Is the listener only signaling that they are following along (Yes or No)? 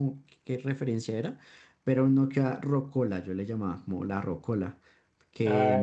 No